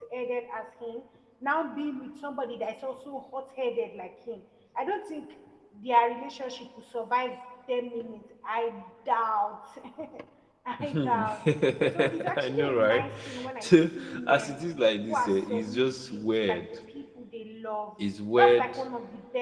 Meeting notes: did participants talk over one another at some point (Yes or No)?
Yes